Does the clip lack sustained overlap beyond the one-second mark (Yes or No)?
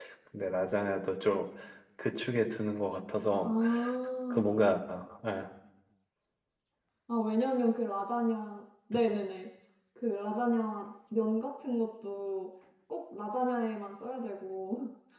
Yes